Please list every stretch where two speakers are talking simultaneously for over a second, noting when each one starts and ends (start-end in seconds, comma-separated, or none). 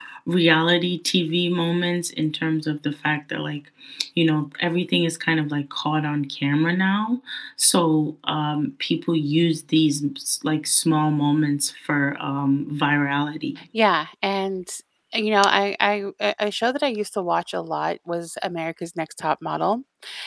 none